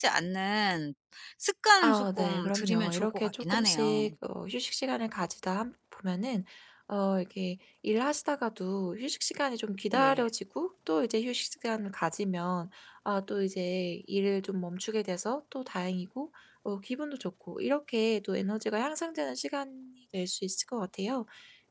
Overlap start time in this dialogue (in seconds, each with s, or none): 1.8 s